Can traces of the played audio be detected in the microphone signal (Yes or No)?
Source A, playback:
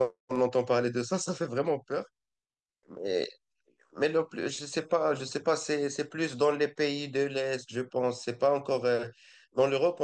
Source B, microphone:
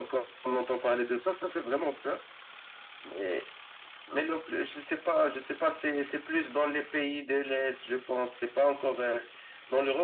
Yes